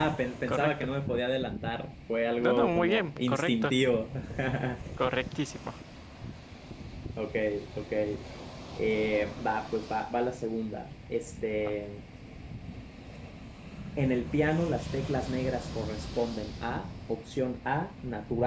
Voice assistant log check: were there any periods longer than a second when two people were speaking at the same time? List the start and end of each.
2.4-3.7

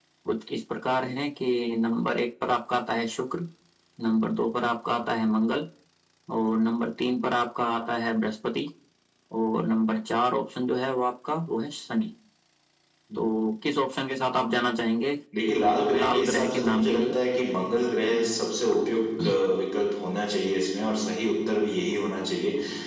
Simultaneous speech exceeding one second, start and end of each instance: 15.9-17.1

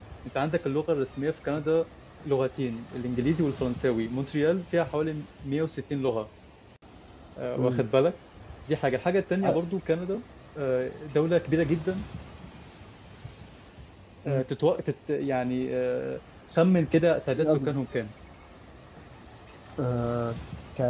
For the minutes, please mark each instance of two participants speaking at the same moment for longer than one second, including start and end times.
none

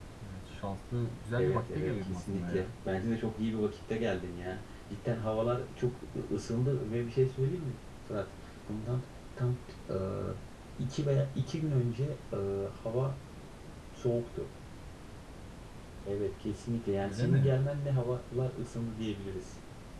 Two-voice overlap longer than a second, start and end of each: 1.4-2.6

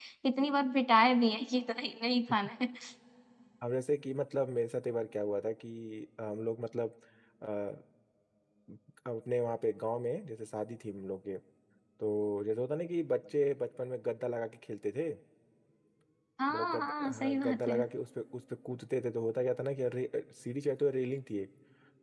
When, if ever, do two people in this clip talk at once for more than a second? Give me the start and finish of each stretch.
16.5-17.8

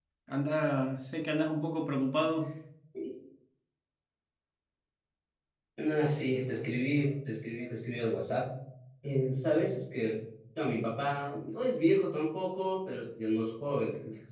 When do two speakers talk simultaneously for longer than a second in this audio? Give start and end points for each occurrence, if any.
none

